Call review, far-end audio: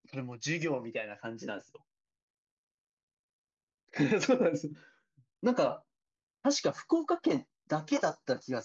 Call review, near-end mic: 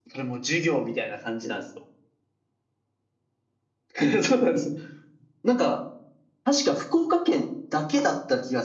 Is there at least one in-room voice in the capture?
No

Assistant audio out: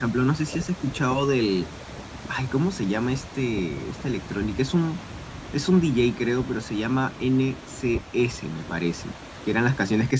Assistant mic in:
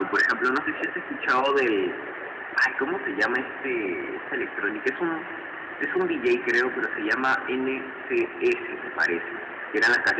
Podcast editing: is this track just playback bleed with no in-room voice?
Yes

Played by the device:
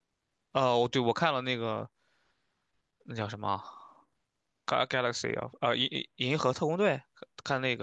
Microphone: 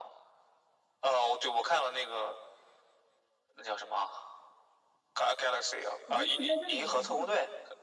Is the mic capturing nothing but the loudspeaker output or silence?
No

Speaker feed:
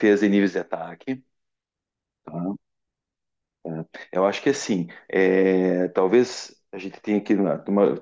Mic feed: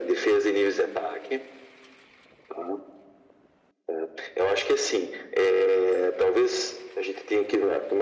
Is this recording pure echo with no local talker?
Yes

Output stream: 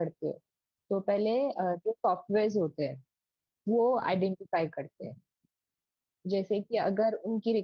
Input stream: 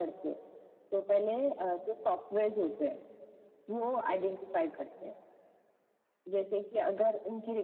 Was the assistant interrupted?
No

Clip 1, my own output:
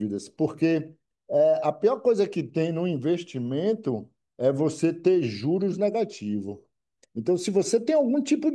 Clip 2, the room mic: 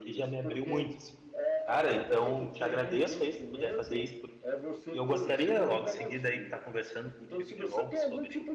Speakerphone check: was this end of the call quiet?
No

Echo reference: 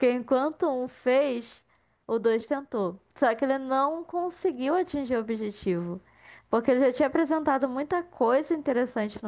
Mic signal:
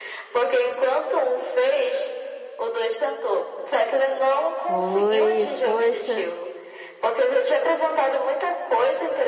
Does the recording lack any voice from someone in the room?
No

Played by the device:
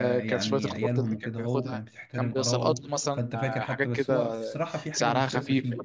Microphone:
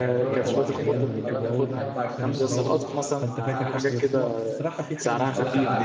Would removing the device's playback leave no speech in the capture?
No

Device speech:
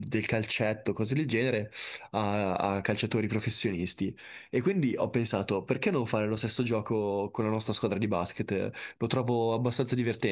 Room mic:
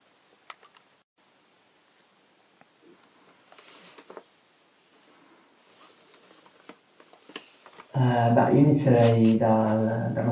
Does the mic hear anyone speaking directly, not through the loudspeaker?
Yes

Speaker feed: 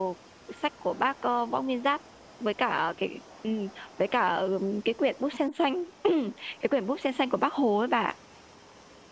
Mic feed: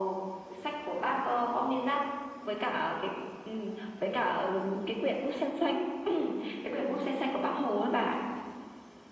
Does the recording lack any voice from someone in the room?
Yes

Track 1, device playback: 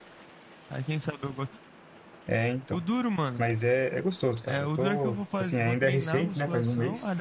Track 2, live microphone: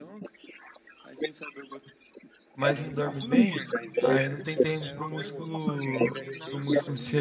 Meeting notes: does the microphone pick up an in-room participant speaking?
Yes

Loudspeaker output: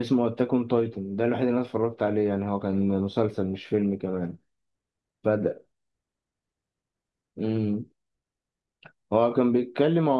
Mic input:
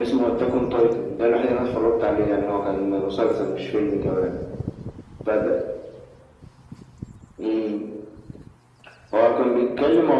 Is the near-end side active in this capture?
No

